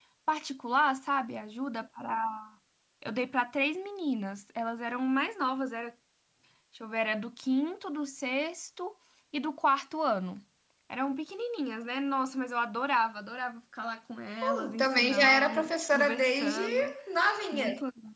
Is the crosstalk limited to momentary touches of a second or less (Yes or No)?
No